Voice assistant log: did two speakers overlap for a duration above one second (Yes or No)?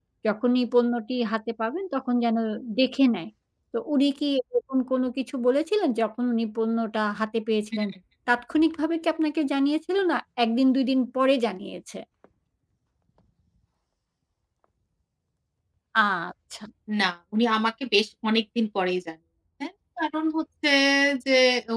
No